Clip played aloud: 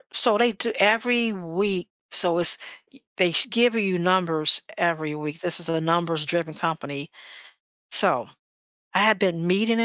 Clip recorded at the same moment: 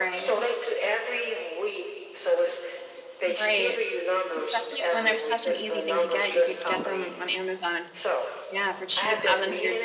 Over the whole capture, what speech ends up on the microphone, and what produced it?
both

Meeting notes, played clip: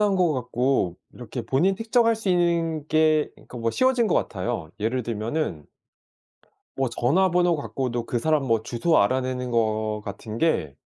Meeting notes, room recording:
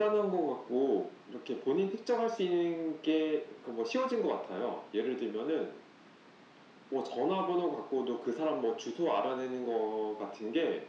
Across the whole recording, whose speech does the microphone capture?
echo only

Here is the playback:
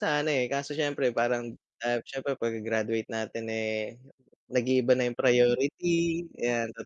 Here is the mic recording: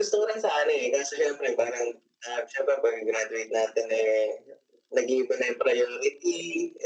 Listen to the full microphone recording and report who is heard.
echo only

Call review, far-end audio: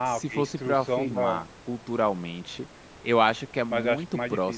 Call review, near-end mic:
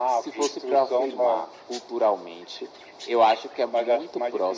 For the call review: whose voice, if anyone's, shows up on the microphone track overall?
echo only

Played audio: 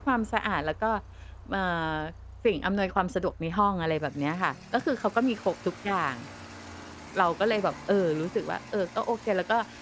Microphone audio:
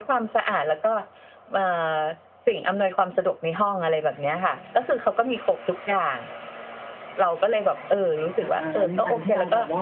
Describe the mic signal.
both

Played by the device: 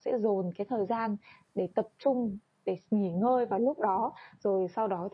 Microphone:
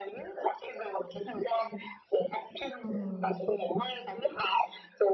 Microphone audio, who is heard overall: both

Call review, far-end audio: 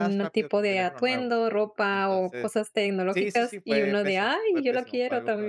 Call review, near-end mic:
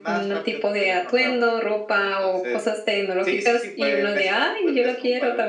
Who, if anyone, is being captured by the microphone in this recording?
echo only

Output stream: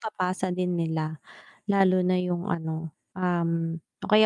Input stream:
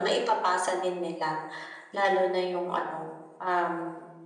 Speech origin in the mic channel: echo only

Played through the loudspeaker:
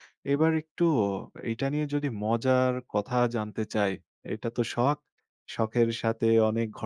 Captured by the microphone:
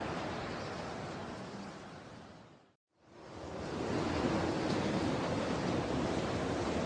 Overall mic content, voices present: neither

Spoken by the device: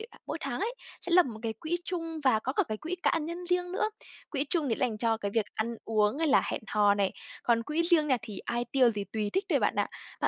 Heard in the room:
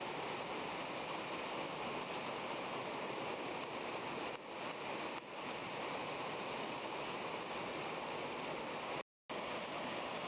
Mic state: neither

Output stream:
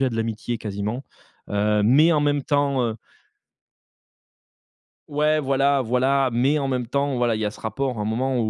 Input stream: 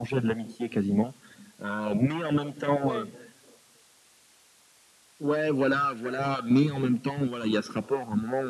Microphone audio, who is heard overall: both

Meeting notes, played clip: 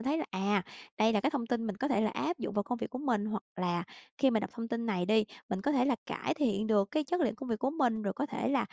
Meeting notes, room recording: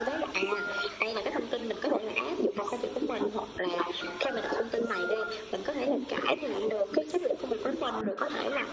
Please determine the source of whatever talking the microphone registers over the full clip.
echo only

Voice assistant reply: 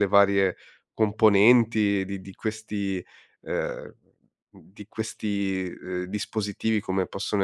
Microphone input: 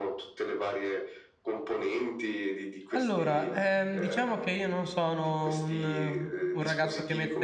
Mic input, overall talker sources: both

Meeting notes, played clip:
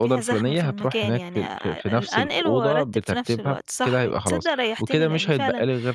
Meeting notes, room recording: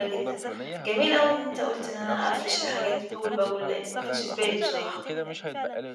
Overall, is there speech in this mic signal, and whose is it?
both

